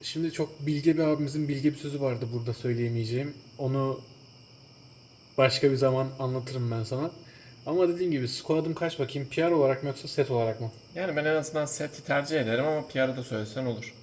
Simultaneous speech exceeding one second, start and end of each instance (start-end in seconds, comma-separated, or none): none